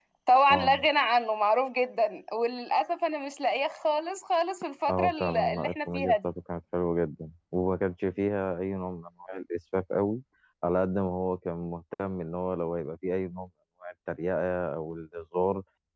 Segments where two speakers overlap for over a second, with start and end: 4.9-6.3

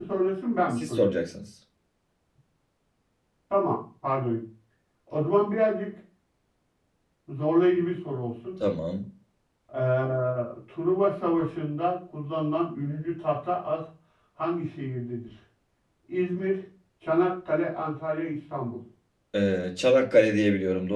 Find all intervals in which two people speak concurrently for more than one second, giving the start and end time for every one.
none

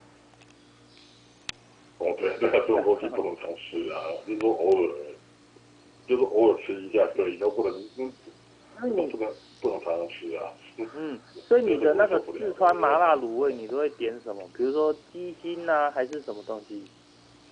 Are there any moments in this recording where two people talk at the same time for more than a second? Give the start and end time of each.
11.7-13.5

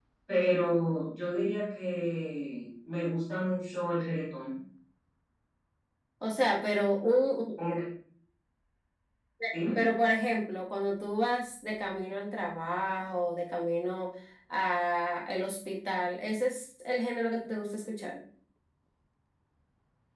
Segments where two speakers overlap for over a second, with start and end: none

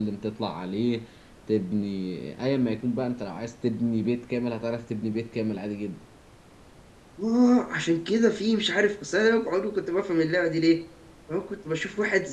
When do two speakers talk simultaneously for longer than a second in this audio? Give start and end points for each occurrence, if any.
none

